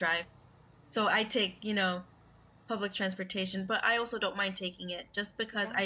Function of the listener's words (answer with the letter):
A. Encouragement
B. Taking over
A